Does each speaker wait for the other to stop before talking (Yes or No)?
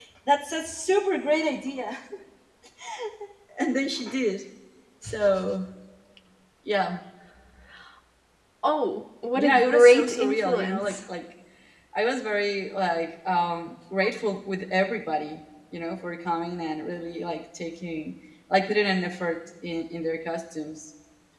No